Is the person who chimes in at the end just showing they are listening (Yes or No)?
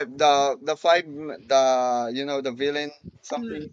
No